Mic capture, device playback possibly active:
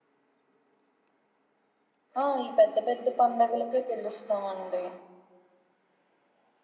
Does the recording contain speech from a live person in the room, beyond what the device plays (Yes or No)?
Yes